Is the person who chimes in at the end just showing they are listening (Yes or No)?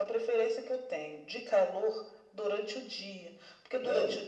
Yes